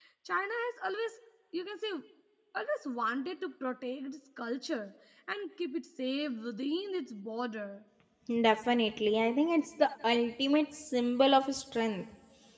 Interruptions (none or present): none